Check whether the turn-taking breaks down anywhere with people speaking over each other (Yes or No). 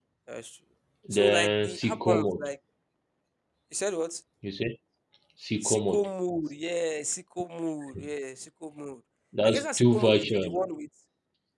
Yes